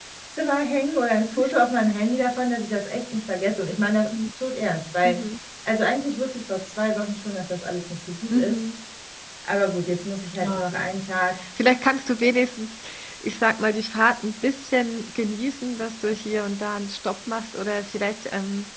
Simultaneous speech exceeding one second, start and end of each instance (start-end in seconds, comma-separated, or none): none